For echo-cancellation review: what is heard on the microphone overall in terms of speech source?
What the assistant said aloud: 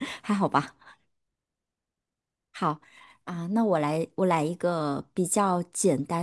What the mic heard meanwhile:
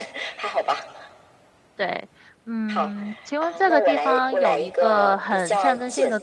both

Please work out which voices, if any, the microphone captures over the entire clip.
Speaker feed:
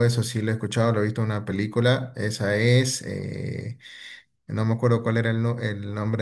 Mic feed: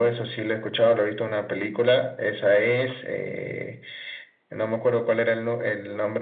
echo only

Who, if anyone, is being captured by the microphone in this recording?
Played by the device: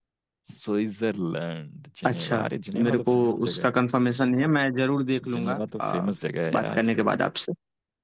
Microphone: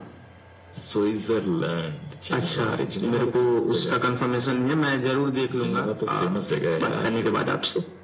echo only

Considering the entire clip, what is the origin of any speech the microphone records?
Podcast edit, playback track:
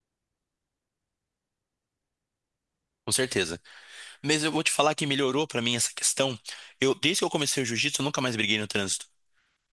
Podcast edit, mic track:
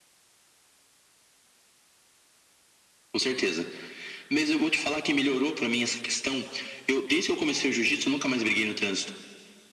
echo only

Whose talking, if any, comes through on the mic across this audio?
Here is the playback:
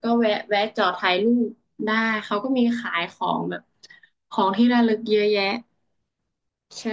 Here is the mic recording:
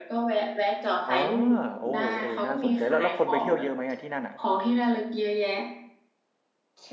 both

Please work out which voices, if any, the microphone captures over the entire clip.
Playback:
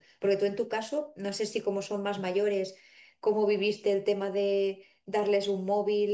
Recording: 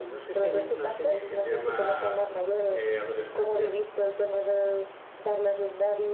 both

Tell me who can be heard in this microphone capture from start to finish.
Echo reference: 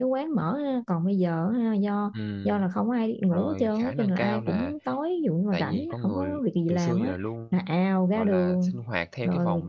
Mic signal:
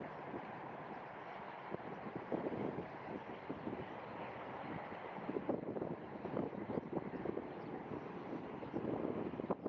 neither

